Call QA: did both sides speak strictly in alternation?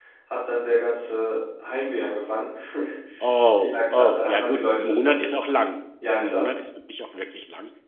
No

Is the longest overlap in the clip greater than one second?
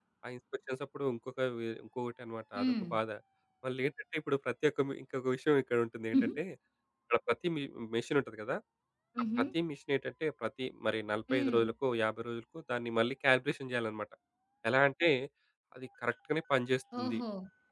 No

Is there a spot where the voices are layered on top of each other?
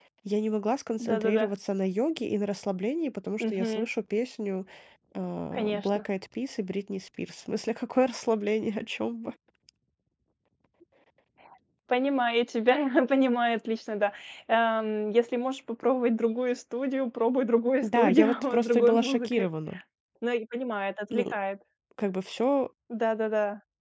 Yes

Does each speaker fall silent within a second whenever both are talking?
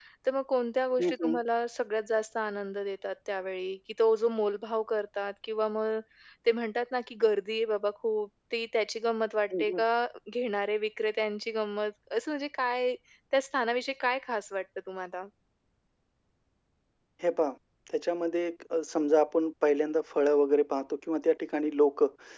Yes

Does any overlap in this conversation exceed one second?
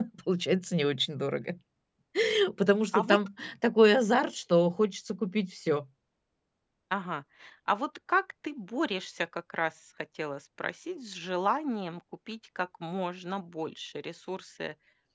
No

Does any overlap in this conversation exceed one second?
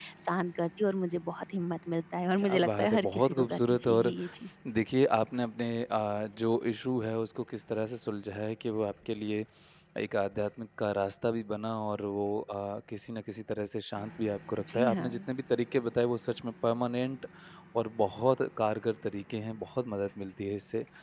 Yes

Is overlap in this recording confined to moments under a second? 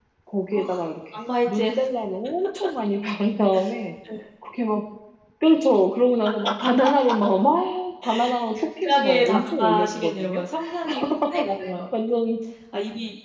No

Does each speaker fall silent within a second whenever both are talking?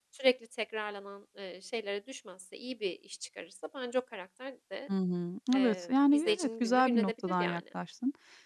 No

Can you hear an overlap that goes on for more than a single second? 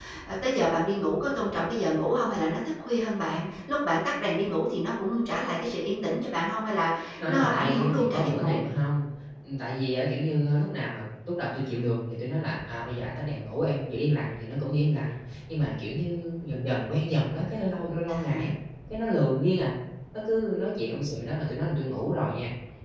Yes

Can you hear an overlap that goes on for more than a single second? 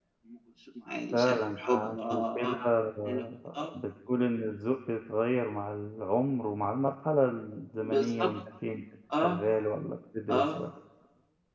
Yes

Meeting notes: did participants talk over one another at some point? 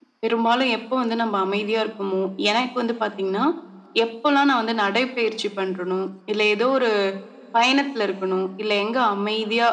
No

